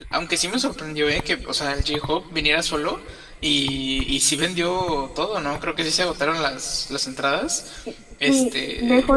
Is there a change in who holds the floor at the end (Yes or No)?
Yes